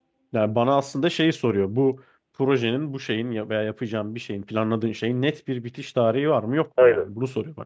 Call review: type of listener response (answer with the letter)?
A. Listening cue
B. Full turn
B